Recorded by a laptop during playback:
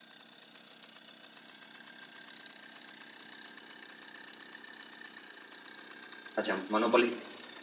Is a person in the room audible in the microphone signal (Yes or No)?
Yes